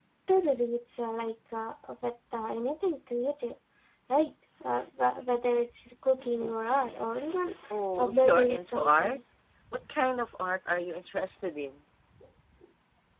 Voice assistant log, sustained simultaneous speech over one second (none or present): present